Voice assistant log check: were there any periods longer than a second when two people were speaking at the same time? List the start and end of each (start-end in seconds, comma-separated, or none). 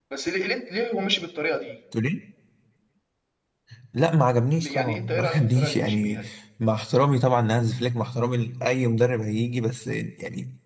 4.6-6.2